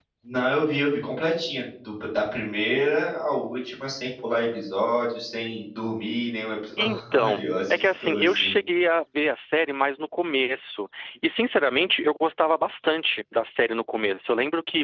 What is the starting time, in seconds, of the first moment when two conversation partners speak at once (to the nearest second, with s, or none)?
7 s